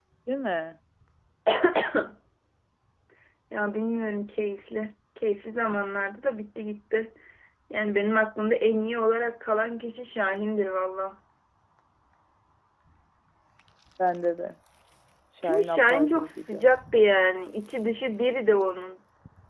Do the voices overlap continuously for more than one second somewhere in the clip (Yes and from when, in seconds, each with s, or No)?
Yes, from 15.4 s